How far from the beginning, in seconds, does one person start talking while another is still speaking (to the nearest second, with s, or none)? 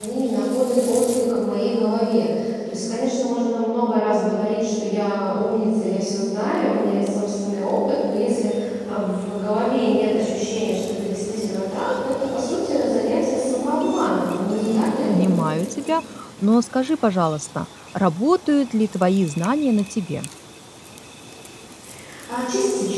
none